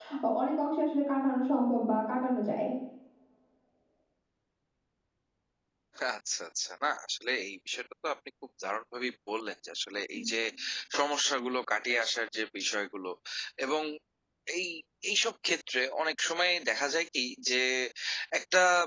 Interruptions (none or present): none